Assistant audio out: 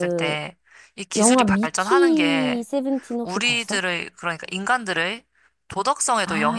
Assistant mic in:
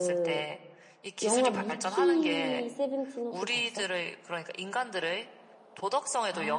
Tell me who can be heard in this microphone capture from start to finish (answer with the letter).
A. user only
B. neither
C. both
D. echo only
D